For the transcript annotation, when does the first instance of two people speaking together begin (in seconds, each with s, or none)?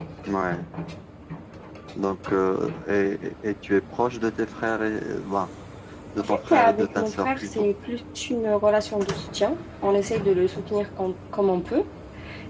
6.2 s